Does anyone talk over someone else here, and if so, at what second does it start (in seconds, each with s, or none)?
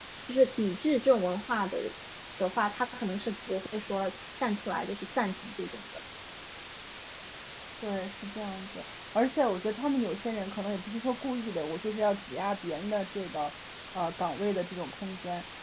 none